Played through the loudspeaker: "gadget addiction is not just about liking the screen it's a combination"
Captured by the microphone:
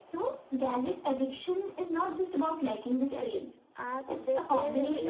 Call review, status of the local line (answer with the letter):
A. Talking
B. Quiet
A